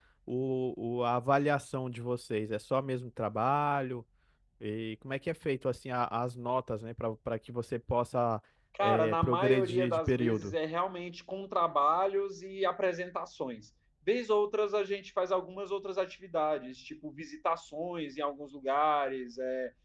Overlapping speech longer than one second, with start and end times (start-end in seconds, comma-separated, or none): 8.8-10.6